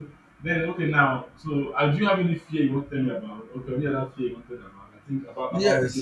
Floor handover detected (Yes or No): Yes